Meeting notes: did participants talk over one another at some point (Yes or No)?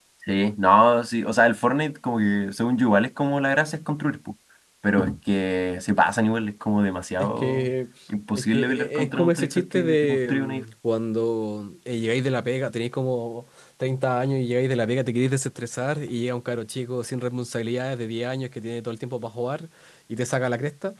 Yes